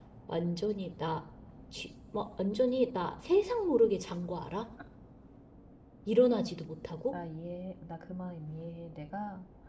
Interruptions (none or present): none